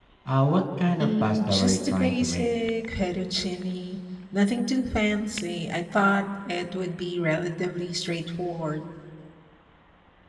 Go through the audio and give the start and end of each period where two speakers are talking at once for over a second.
1.0-2.5

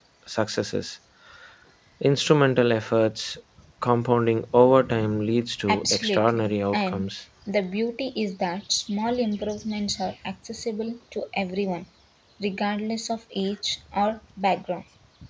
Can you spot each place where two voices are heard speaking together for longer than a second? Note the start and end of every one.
5.7-7.0

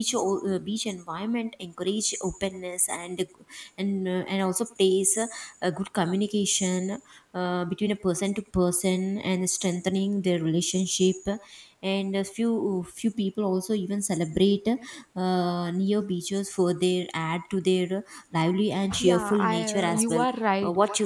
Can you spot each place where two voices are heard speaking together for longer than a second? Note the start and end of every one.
19.0-20.2

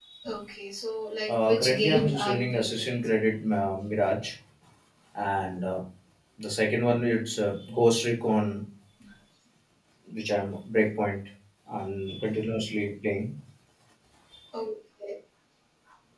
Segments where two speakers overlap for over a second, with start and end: 1.3-3.1

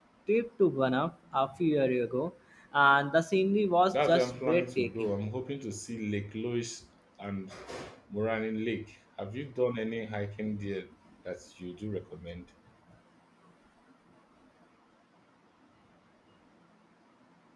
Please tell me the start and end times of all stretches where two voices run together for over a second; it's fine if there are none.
3.9-5.1

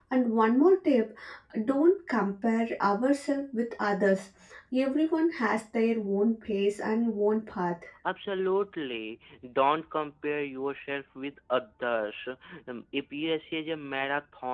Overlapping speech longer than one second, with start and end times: none

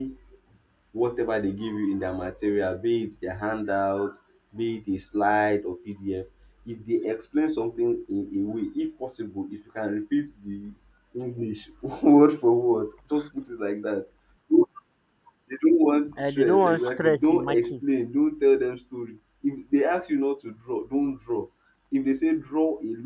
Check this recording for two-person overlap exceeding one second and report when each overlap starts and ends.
16.2-17.8

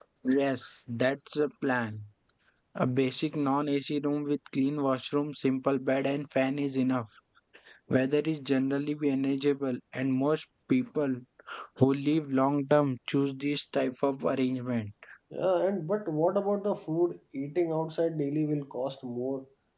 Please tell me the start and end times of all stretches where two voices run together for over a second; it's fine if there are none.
none

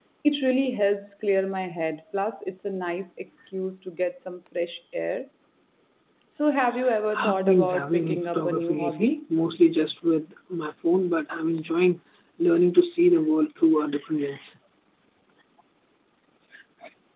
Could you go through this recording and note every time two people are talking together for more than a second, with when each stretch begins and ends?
7.1-9.2

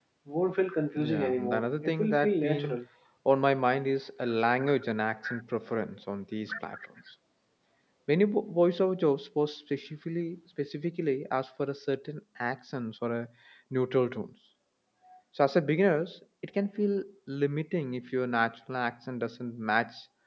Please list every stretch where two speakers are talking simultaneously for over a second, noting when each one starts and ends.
1.0-2.8

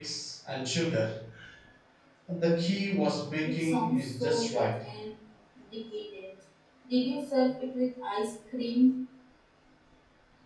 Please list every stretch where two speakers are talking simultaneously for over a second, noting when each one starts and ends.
3.4-4.7

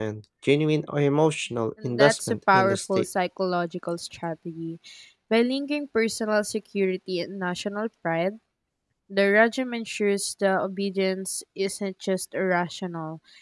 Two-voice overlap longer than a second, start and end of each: 1.8-3.0

